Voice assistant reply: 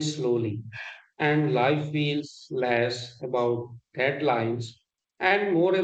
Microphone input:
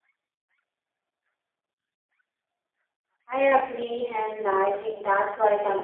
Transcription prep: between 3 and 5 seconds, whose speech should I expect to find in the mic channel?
user only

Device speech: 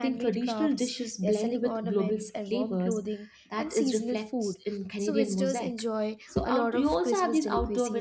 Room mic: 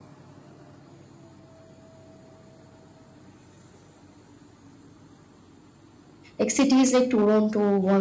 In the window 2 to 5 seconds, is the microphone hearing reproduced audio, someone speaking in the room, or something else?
neither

